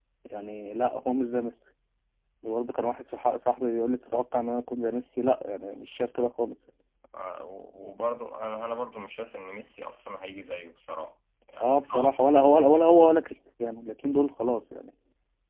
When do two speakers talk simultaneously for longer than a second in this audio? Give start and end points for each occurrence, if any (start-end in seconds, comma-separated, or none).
none